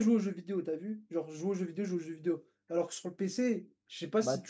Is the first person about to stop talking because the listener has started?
No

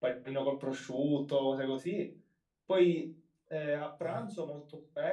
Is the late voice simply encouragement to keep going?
Yes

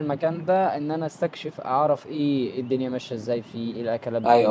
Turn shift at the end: Yes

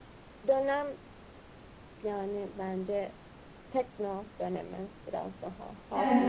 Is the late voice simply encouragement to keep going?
No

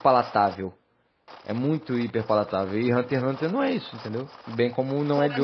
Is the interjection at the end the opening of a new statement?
Yes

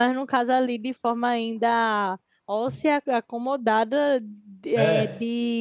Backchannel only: Yes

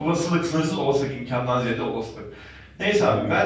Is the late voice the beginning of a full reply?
No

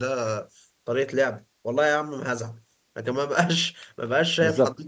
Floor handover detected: No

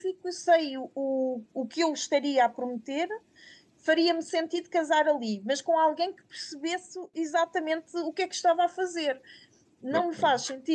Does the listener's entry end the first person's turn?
No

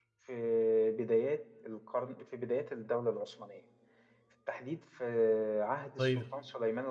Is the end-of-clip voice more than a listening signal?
No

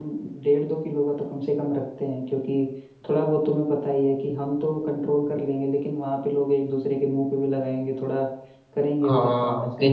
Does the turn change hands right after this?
Yes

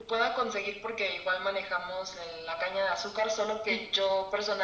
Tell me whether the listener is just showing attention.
Yes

